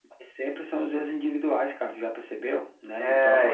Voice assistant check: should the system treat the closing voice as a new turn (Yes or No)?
Yes